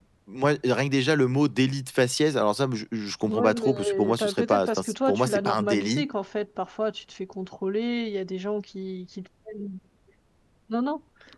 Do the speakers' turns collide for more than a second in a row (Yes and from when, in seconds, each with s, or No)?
Yes, from 3.3 s